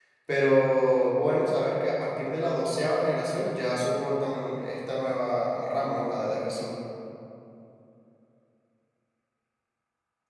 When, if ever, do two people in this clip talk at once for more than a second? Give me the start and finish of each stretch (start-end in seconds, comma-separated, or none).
none